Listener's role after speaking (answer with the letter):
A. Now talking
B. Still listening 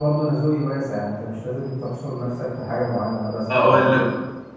A